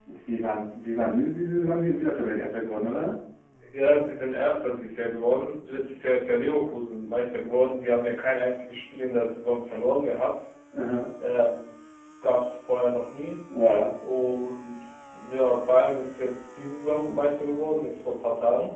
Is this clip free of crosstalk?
Yes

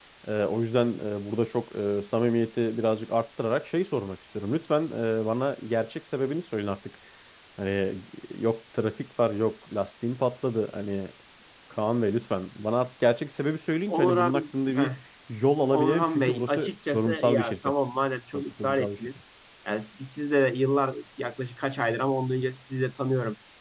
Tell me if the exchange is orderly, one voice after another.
No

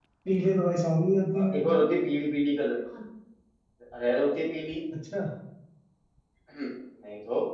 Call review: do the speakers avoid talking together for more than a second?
Yes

